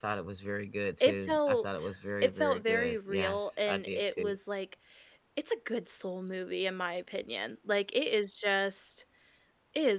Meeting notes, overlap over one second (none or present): present